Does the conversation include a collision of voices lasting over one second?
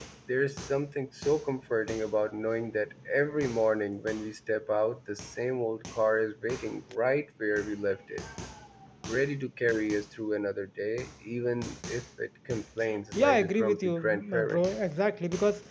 Yes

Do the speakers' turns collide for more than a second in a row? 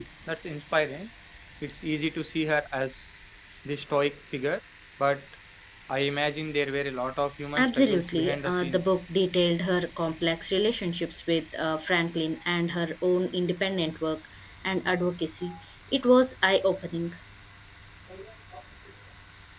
Yes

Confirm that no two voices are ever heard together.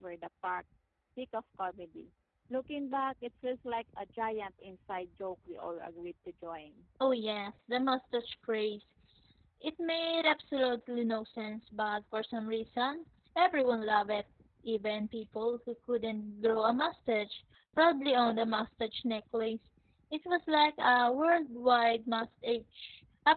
Yes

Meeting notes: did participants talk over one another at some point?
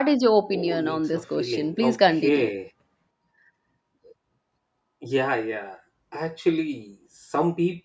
Yes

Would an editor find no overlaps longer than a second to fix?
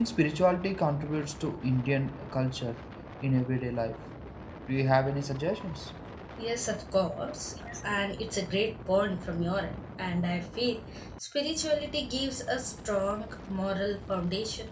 Yes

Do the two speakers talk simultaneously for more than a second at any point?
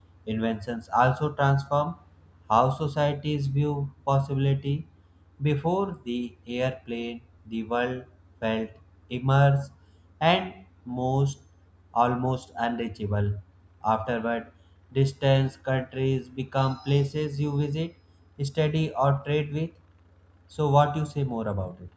No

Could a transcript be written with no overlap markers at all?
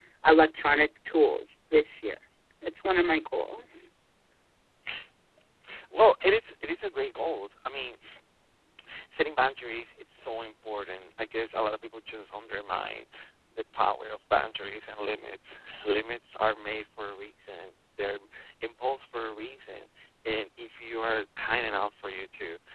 Yes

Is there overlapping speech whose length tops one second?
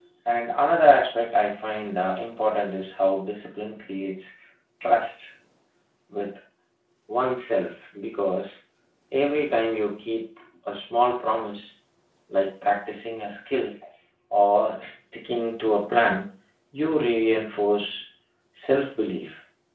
No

